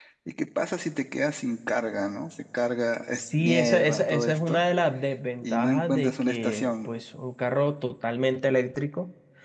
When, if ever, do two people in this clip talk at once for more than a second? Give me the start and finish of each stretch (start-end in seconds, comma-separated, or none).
3.1-4.6, 5.4-6.9